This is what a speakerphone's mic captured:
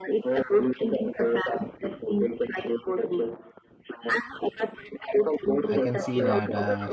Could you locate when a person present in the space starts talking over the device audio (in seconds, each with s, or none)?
5.7 s